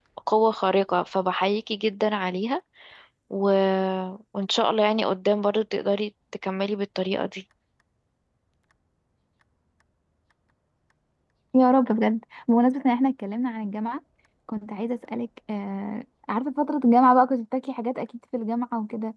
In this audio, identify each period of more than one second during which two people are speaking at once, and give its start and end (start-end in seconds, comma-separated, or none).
none